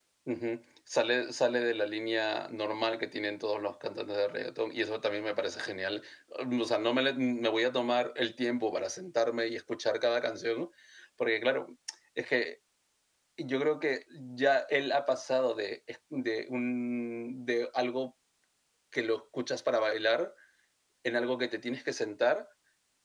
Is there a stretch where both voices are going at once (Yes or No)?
No